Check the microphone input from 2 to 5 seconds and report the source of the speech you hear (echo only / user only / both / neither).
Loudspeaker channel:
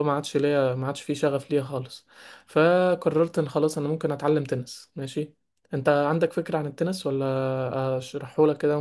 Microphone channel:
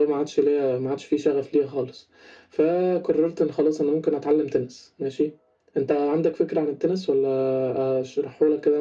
echo only